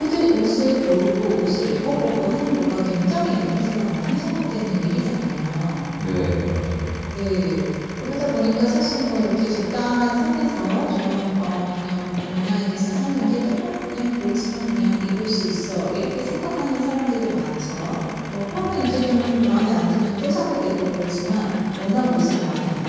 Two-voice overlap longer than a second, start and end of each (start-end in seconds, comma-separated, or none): none